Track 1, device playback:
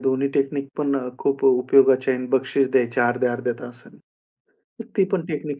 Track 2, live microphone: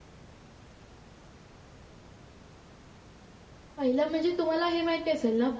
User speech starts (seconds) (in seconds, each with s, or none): 3.8 s